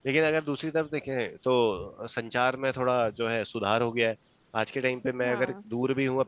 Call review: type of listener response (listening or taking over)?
listening